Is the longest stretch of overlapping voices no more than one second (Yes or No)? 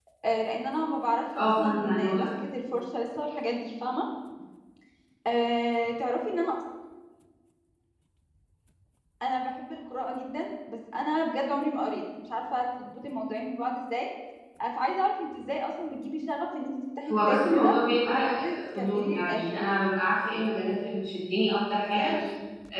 No